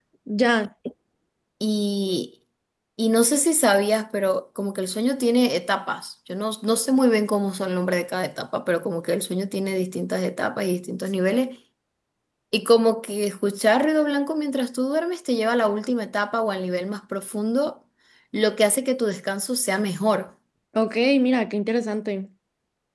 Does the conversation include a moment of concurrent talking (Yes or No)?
No